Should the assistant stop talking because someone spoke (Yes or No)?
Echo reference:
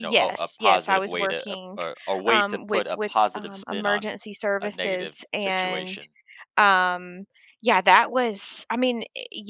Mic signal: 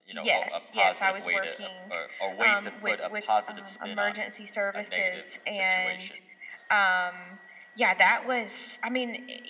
No